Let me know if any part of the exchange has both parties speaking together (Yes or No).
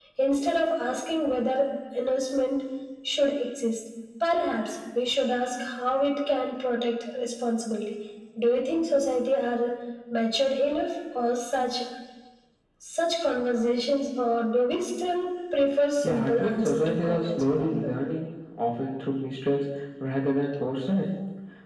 Yes